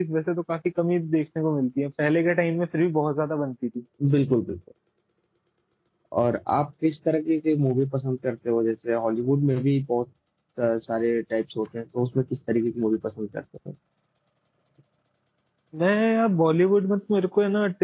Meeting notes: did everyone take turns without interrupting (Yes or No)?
Yes